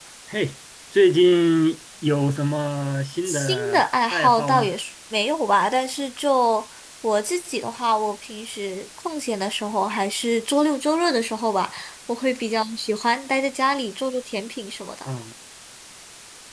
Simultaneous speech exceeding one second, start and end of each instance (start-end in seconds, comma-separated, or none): 3.2-4.7